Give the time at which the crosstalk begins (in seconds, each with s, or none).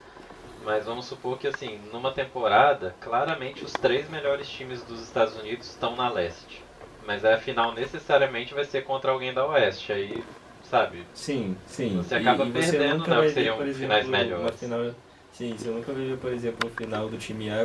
11.9 s